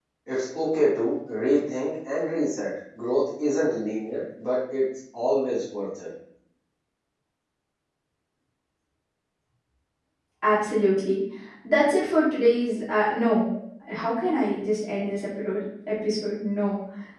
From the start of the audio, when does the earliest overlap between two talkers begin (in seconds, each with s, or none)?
none